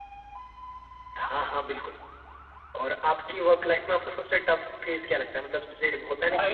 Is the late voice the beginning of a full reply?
Yes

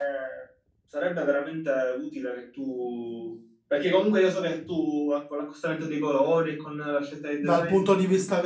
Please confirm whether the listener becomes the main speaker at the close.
Yes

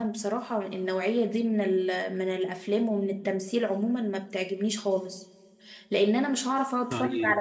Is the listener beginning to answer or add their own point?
No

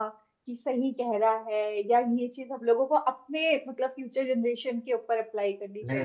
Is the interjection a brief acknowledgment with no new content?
No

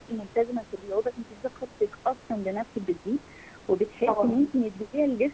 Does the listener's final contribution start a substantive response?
No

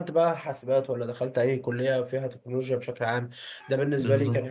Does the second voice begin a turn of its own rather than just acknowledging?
No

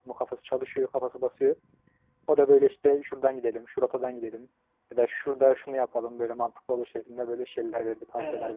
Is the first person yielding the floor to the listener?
Yes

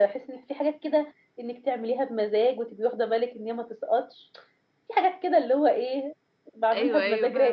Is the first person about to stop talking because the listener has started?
Yes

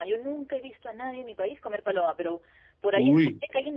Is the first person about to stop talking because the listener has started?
No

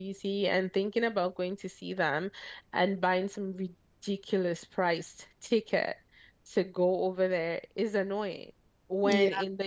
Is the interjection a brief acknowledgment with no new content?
Yes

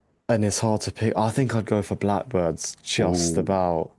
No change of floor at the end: No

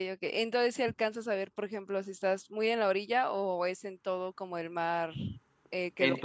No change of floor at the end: No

